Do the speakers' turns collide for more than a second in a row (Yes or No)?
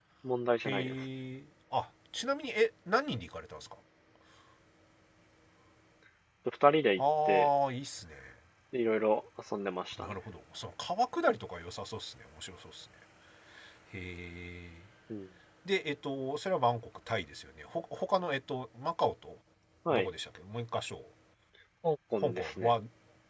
No